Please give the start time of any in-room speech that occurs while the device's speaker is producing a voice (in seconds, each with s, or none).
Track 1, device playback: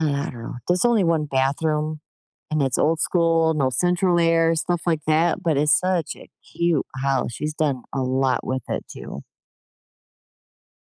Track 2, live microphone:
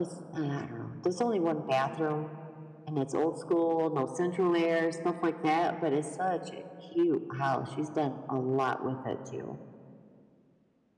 none